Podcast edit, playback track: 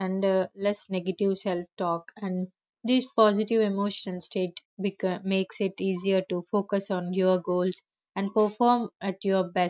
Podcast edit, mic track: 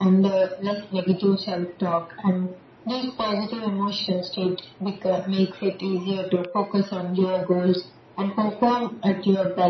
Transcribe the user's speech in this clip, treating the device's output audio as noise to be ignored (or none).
none